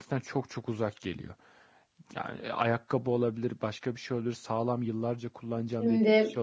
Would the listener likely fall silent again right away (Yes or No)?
Yes